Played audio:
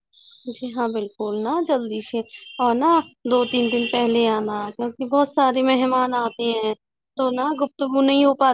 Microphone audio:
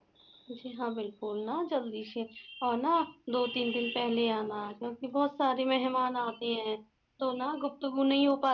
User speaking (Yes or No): No